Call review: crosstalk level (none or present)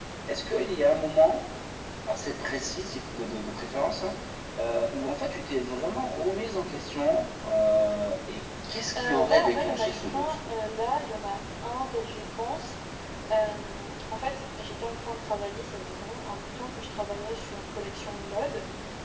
present